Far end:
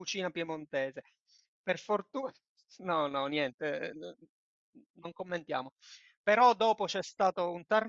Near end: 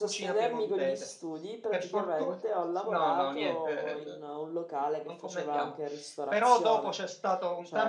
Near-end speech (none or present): present